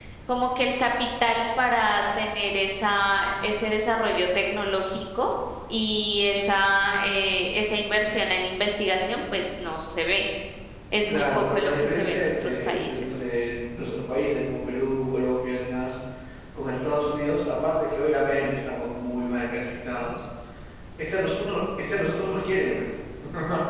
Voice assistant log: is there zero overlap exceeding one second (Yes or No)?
No